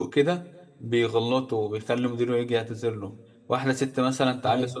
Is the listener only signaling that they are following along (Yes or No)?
Yes